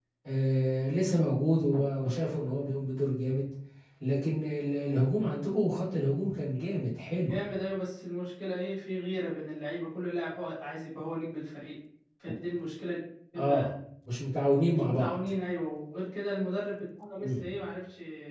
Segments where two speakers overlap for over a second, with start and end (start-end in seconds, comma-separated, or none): none